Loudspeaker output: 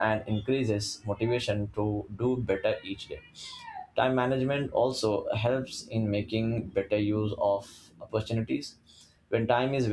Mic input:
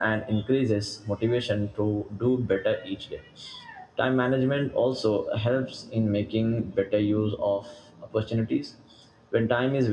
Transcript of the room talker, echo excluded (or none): none